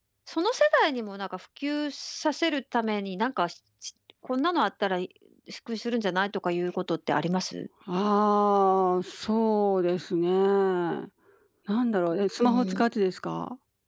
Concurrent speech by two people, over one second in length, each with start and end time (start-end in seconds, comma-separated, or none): none